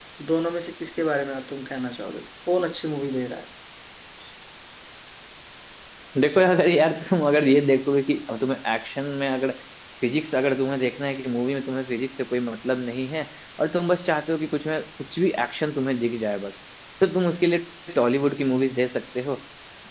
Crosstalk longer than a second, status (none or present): none